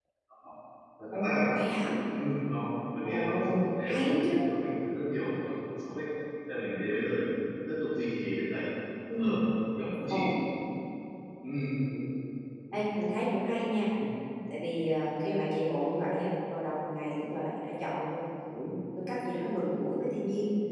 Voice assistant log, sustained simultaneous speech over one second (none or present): present